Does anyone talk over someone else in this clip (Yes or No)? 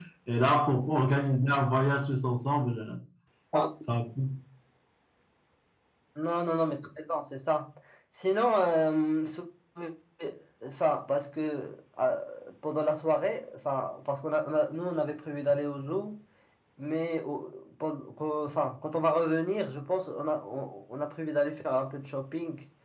No